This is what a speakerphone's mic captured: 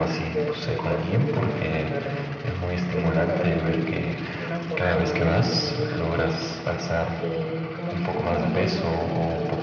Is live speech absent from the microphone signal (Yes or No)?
No